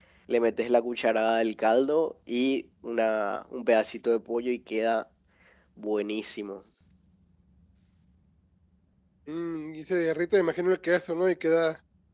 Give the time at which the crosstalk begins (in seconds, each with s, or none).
none